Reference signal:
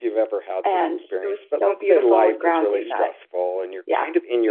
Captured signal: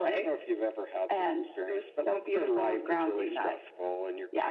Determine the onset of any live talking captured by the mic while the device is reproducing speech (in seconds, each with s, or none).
none